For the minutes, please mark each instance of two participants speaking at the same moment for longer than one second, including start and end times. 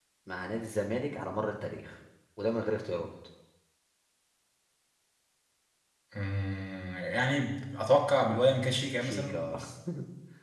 none

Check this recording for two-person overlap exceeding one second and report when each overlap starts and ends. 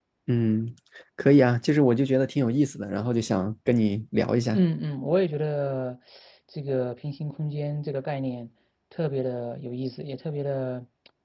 none

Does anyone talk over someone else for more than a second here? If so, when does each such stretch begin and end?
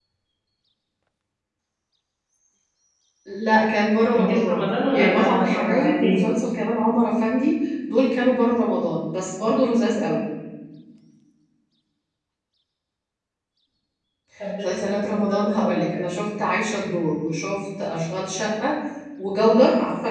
4.2-6.3, 14.6-15.9

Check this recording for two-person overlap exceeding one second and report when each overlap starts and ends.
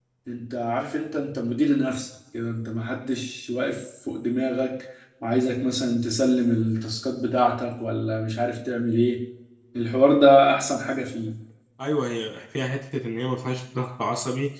none

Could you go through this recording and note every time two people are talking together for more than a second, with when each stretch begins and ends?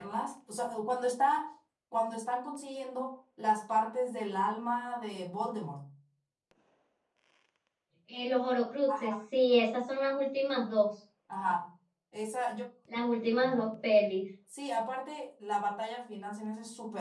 none

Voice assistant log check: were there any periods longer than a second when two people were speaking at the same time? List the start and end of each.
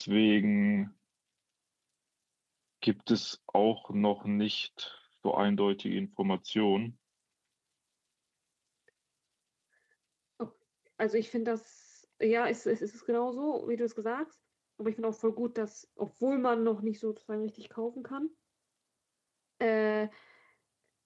none

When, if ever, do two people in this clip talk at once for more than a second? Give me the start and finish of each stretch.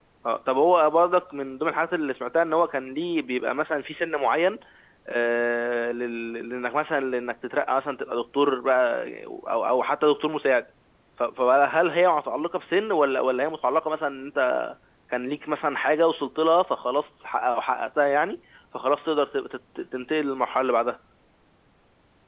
none

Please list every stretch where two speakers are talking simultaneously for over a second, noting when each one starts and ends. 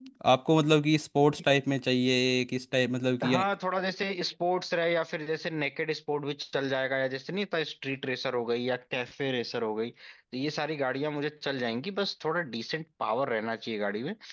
none

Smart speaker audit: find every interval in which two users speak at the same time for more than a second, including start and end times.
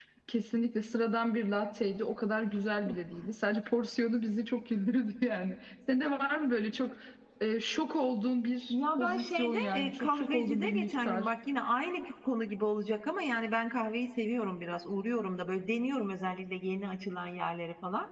8.7-11.2

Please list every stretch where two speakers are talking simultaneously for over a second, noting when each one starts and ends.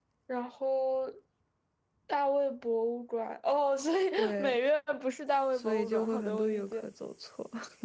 5.5-6.9

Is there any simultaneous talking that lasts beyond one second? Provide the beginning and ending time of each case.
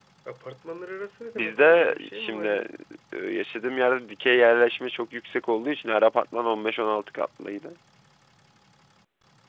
1.4-2.6

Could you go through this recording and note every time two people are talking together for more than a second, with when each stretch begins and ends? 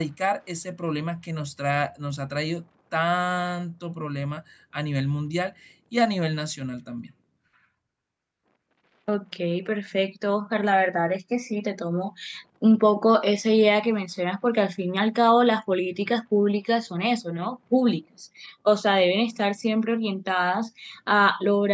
none

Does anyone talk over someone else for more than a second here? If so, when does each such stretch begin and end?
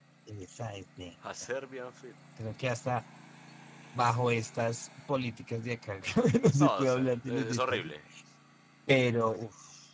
6.6-7.9

